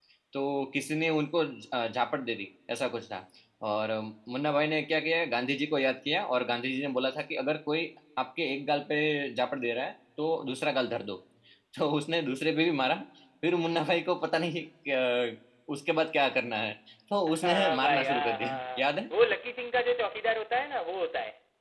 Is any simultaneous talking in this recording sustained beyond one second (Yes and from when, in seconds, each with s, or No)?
Yes, from 17.3 s